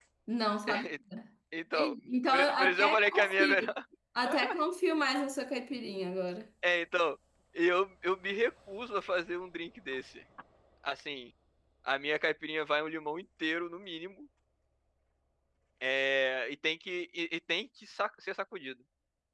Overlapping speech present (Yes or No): Yes